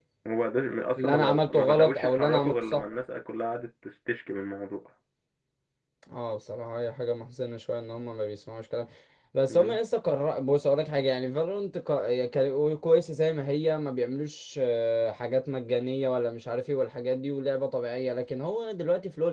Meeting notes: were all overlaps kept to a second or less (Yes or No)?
No